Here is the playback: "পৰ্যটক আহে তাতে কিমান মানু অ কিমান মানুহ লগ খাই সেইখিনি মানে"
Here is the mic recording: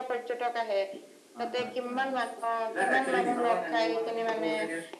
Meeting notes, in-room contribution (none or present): present